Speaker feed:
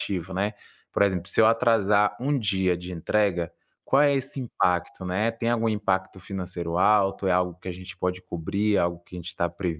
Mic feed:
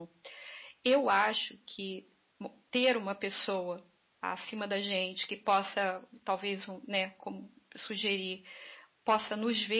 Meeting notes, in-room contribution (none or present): present